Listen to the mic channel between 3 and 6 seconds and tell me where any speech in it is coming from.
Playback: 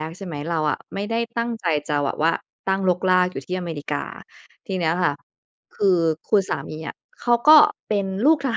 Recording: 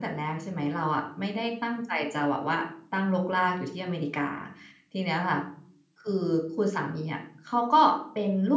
echo only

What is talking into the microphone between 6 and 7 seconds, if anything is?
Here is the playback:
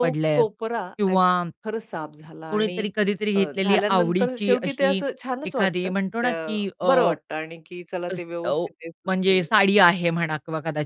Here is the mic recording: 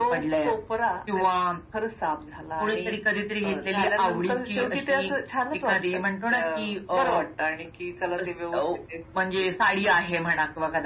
echo only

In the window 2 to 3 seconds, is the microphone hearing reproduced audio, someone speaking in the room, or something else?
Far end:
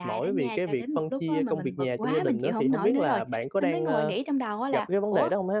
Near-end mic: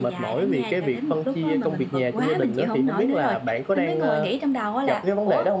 echo only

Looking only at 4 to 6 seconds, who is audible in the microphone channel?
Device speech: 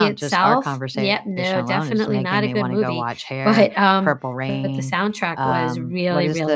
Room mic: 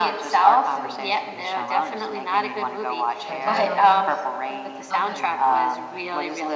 both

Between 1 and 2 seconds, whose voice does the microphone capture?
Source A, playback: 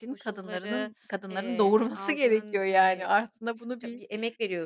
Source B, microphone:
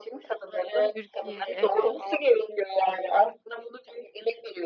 both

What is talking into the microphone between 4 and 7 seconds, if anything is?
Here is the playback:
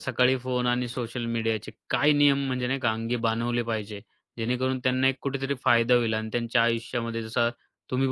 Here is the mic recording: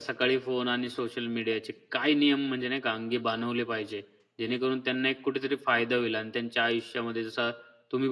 echo only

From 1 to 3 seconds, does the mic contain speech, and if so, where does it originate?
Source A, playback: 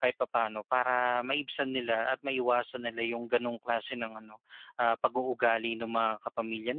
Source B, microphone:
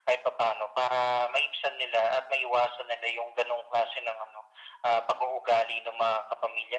echo only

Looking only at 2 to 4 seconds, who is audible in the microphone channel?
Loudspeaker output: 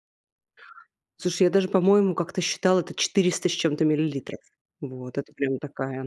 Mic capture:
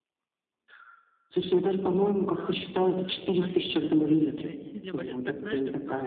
both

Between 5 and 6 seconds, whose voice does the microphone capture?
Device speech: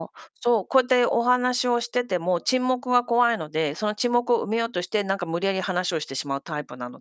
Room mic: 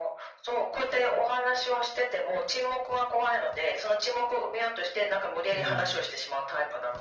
both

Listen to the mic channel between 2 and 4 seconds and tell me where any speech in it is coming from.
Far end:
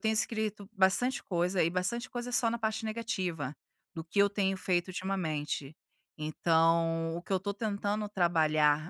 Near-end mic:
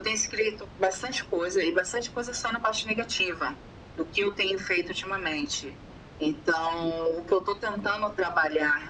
echo only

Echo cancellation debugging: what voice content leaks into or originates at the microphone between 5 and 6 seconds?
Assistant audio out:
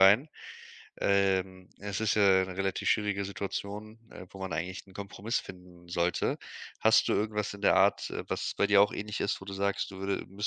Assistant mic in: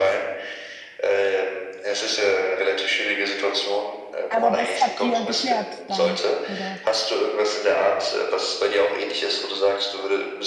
both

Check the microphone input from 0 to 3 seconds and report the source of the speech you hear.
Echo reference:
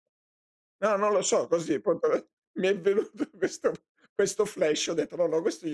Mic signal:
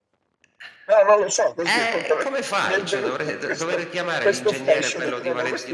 both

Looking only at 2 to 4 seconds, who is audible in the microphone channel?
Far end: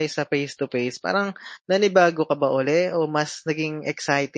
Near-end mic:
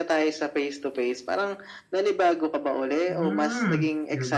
both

